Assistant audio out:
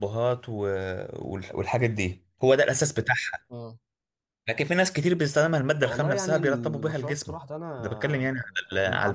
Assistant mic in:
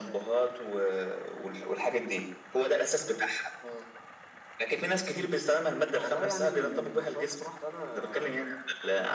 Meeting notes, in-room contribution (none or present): none